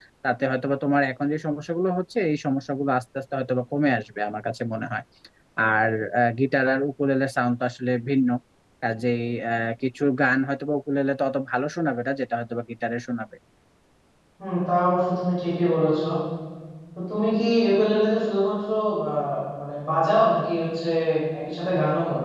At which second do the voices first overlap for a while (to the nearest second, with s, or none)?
none